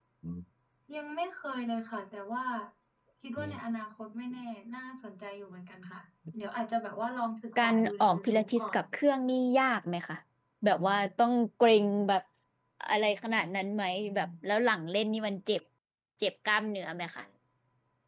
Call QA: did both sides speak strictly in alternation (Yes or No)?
No